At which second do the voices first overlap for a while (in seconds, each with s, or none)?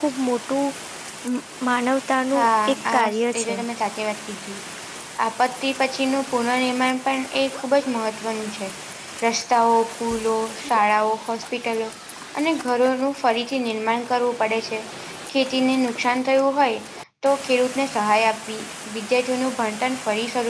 2.3 s